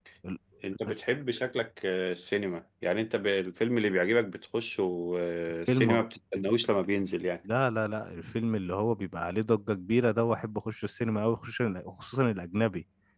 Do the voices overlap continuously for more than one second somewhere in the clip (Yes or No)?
No